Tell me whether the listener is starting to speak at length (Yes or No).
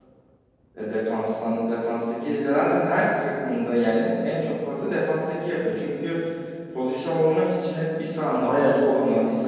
No